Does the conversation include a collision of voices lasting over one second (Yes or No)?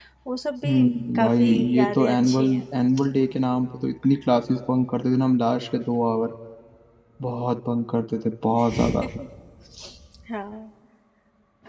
Yes